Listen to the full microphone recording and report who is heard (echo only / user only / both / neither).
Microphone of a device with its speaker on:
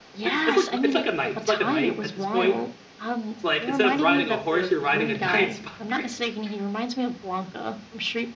both